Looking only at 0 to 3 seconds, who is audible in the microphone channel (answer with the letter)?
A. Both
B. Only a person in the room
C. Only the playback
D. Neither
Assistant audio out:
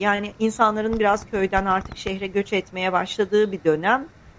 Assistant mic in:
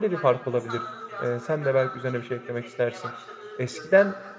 A